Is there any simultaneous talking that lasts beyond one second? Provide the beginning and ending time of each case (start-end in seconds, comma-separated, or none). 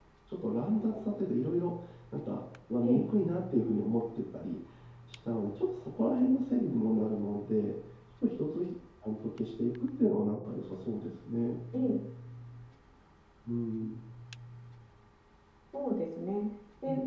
none